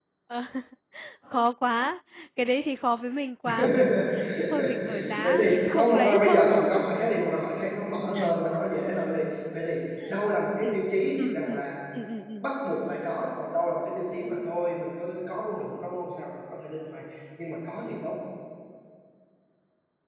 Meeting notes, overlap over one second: present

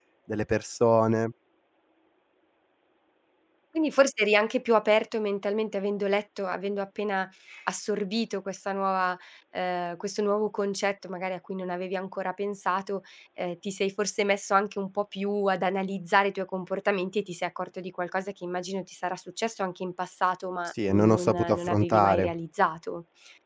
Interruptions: present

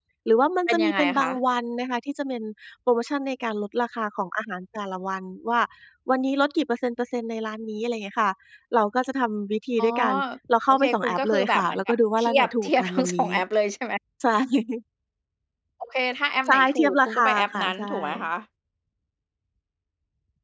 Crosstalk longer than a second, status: present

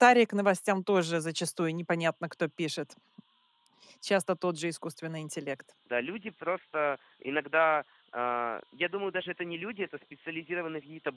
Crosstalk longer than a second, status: none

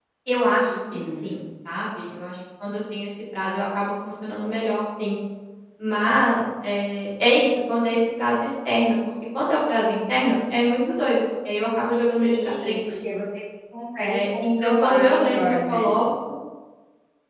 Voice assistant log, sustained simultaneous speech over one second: present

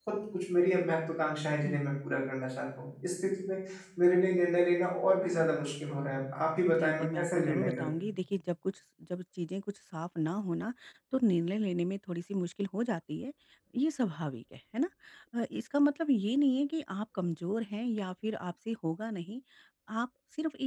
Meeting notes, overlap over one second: present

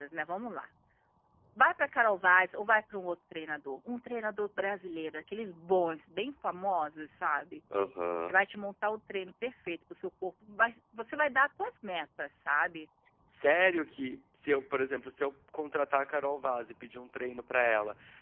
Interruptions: none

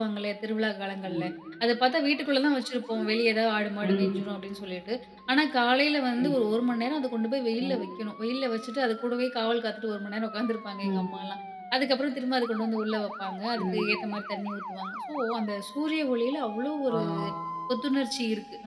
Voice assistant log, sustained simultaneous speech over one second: none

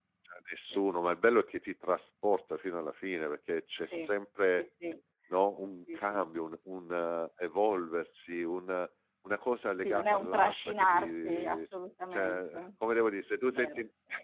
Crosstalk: present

